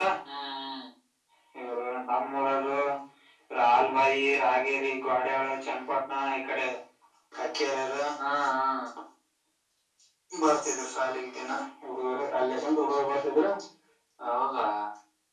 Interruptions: none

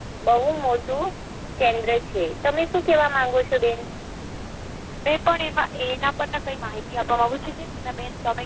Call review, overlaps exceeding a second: none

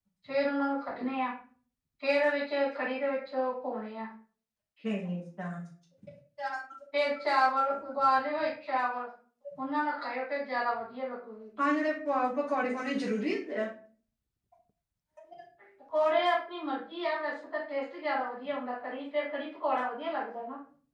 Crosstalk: none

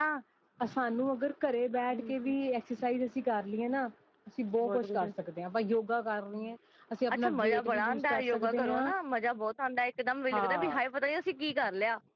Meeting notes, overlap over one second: present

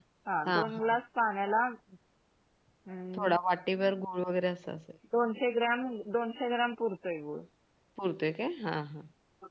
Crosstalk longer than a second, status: none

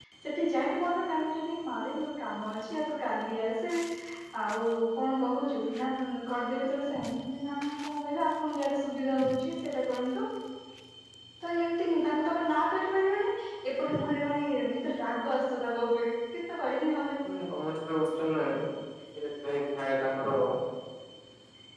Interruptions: none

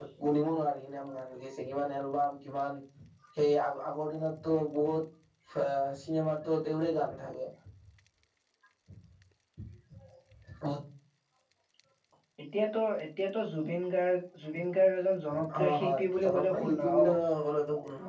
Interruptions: present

